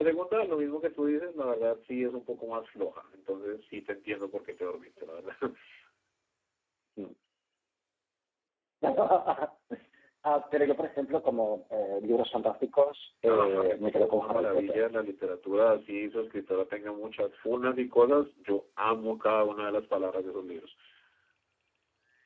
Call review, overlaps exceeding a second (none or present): present